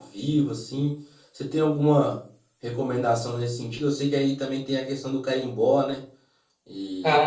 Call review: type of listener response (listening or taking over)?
taking over